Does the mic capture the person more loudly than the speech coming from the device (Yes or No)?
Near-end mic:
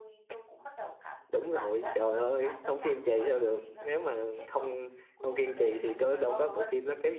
Yes